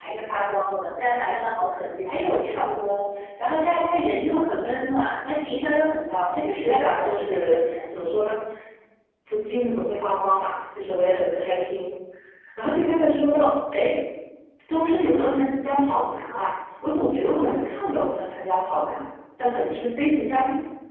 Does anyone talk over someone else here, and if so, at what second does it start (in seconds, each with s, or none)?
6.5 s